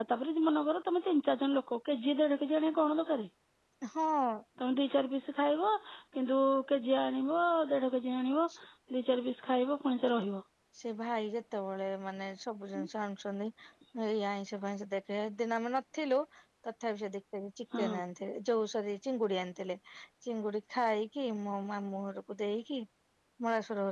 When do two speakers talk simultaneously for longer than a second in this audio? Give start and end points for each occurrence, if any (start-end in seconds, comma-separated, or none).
none